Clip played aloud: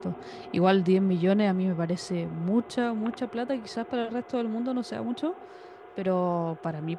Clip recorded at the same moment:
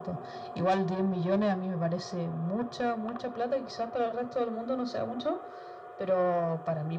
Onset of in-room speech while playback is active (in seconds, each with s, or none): none